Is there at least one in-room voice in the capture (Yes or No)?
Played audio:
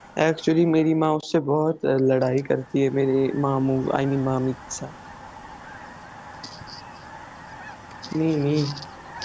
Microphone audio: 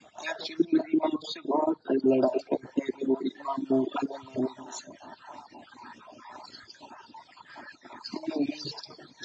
No